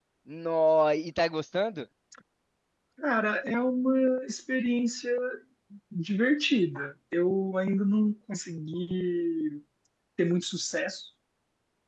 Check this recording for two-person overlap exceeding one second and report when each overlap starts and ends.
none

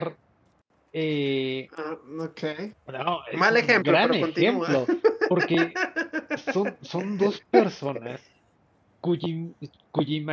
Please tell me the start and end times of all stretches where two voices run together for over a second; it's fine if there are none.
3.3-4.8

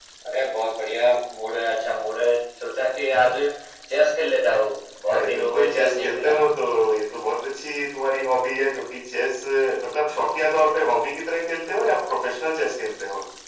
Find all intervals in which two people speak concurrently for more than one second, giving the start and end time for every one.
5.1-6.4

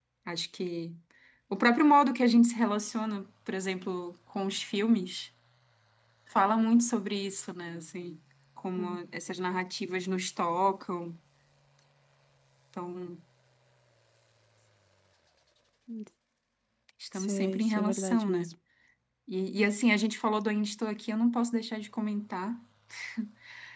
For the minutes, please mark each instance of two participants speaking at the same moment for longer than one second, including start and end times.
17.2-18.4

